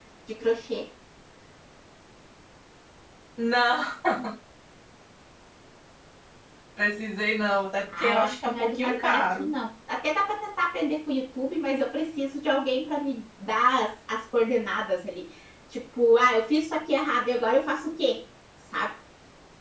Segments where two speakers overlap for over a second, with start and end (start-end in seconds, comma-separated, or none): 8.0-9.5